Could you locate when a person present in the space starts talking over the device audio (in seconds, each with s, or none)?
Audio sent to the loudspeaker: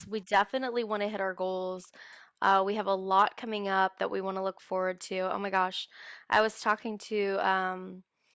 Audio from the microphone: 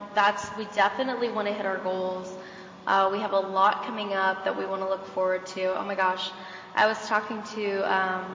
none